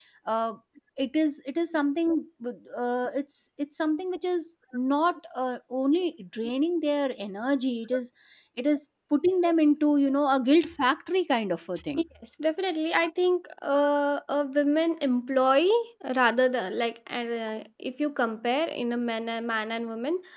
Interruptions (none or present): none